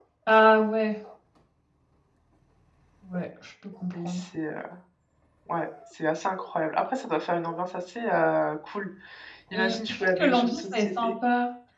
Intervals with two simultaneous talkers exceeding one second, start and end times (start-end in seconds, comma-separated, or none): 9.5-11.1